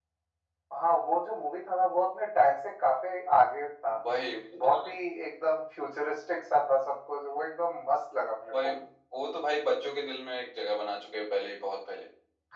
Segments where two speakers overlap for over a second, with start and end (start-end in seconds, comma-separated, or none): none